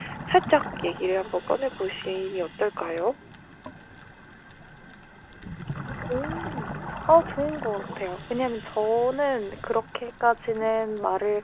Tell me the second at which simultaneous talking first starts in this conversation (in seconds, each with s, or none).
none